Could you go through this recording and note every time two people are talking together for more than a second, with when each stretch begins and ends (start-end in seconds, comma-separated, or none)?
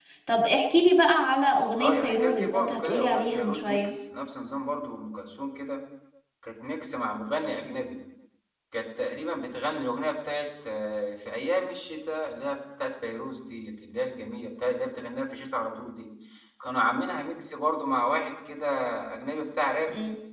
1.8-3.9